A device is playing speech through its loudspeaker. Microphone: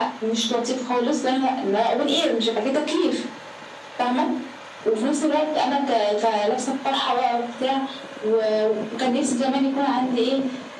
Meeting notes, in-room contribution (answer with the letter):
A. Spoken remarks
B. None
B